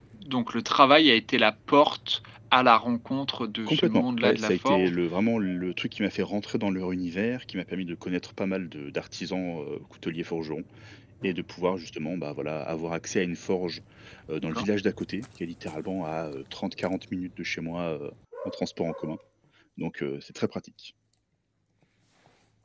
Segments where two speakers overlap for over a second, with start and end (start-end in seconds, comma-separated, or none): 3.7-4.9